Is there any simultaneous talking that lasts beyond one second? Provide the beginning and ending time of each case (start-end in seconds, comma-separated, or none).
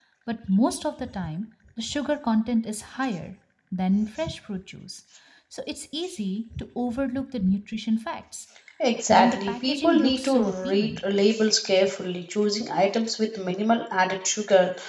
9.1-11.0